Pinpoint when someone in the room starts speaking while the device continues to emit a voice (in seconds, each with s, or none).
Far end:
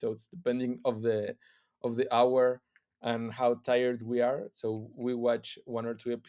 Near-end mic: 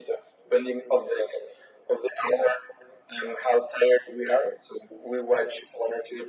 none